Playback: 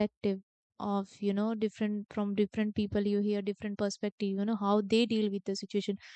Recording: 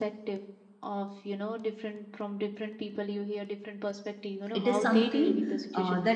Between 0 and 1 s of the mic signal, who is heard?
echo only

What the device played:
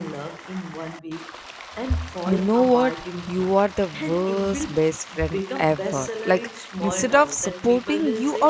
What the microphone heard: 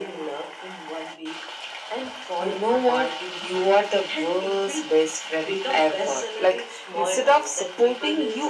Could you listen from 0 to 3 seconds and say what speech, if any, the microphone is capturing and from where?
echo only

